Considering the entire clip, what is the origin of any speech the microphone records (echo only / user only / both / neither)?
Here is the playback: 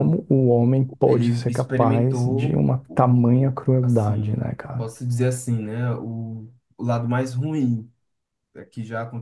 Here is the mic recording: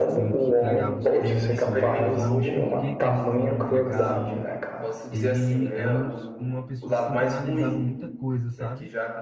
both